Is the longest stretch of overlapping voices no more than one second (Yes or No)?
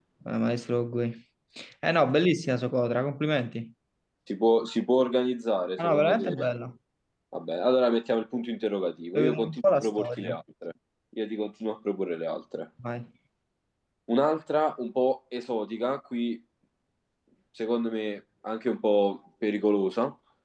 No